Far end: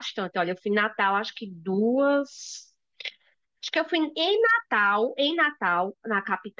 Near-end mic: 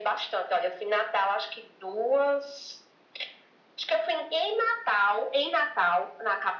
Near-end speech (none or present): none